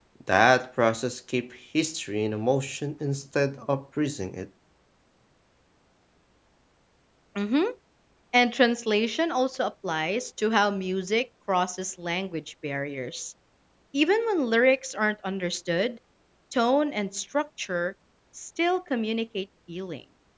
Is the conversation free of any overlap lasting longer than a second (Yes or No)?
Yes